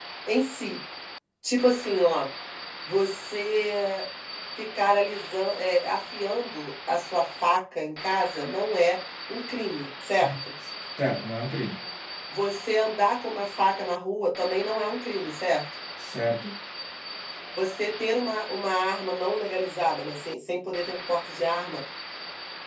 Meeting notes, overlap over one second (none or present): none